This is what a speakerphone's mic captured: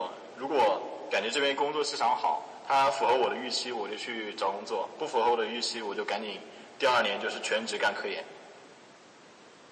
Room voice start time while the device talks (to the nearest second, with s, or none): none